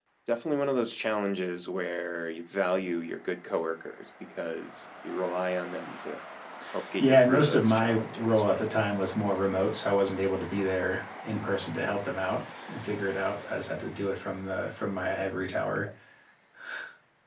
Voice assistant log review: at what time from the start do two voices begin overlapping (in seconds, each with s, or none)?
7.0 s